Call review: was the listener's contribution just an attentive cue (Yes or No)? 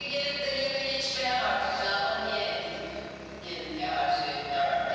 No